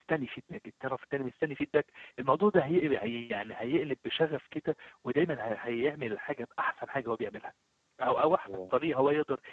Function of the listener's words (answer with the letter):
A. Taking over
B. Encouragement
B